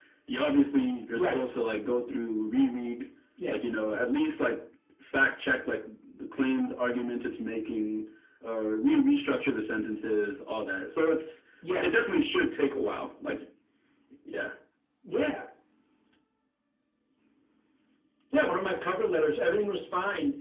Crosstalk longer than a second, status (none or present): none